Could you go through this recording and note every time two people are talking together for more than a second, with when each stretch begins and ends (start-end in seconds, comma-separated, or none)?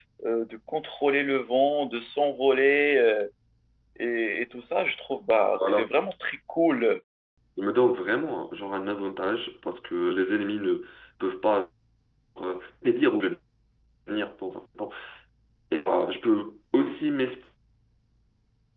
none